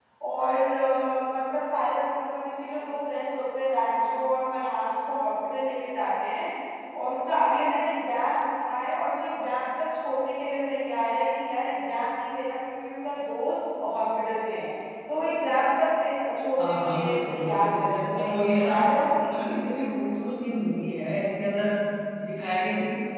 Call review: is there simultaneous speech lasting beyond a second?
Yes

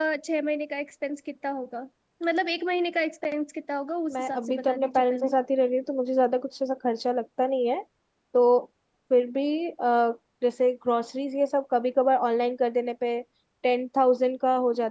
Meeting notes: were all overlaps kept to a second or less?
No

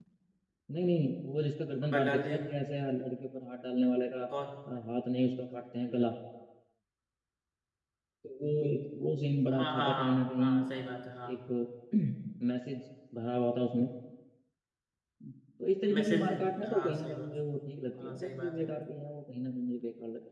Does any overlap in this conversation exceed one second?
Yes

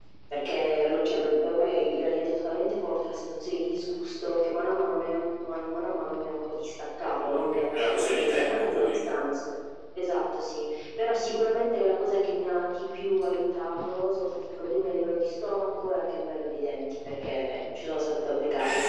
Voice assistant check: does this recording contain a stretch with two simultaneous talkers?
Yes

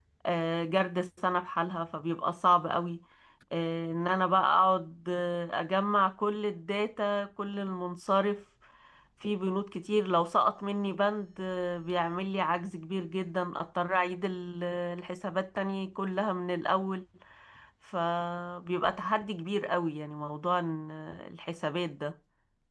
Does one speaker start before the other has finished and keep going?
No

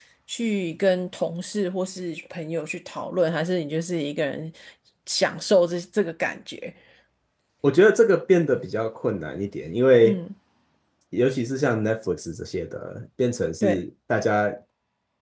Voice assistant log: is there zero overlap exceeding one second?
Yes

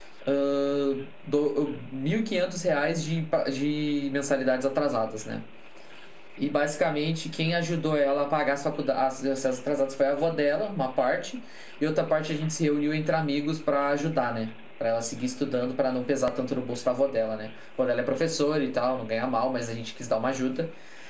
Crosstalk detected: No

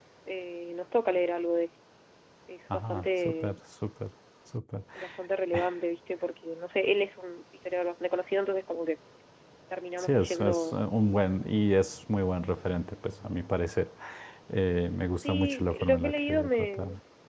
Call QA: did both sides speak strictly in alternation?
No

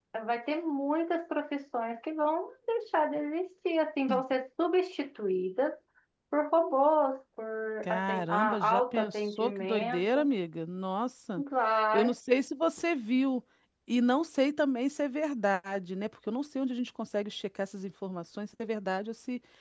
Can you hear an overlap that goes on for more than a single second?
Yes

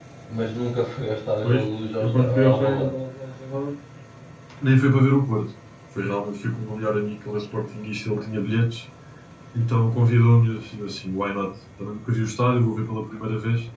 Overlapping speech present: Yes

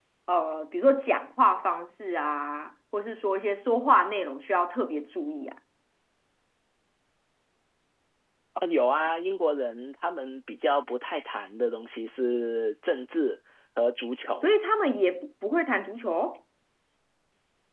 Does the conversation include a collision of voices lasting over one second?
No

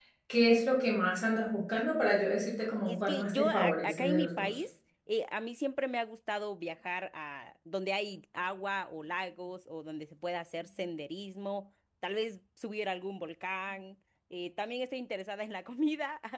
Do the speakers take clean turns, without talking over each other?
No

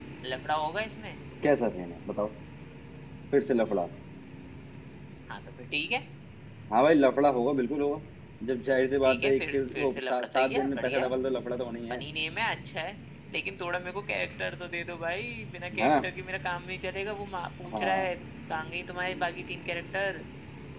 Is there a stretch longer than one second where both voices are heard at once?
Yes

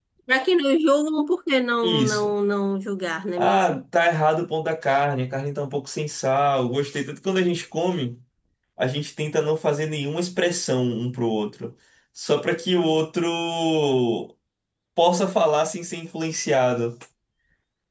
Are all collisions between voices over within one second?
Yes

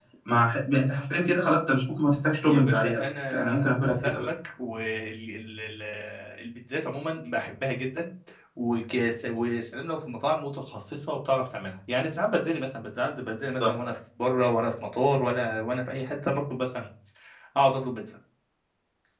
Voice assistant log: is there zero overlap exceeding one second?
No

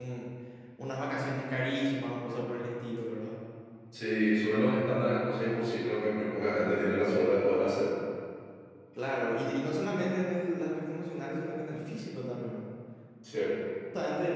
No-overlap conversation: Yes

